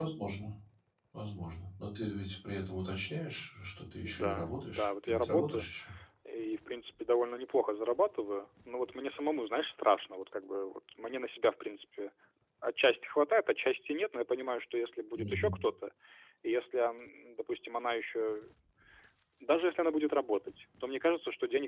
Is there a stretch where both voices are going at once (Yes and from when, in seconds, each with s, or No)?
Yes, from 4.0 s